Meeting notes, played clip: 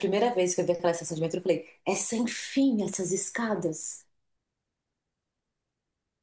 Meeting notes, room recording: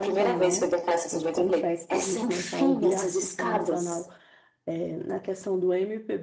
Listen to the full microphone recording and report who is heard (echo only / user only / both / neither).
both